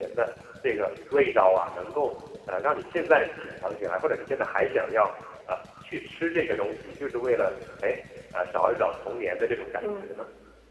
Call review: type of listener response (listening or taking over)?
taking over